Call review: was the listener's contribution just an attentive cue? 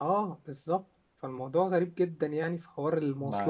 No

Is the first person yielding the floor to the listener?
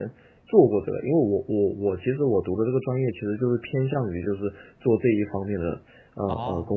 Yes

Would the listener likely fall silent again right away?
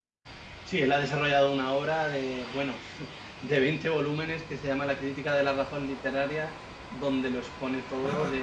No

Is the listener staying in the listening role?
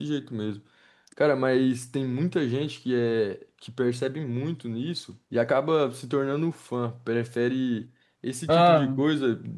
Yes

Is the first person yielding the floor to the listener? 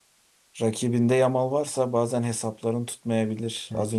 Yes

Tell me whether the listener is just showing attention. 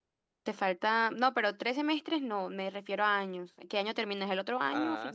No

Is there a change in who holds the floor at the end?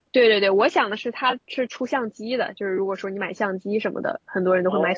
No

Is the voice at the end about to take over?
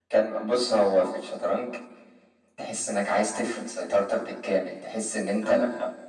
No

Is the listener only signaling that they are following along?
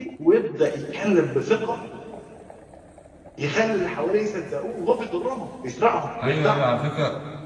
No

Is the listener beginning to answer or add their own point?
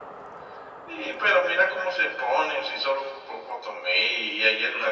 Yes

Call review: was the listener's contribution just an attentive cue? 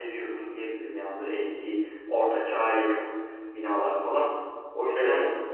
Yes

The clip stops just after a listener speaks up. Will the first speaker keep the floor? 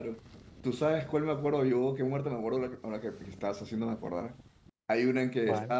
Yes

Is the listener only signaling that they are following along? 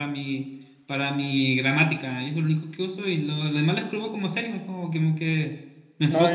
No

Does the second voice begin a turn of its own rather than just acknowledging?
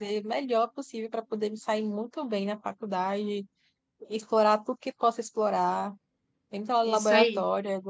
No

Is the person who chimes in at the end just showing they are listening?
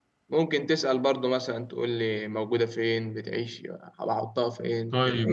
No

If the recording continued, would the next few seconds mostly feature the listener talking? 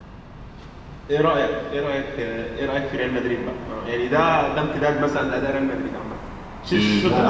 Yes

